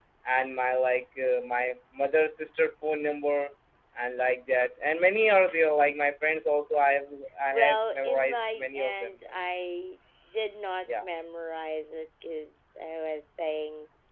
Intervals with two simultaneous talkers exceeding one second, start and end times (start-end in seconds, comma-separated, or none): 7.5-9.1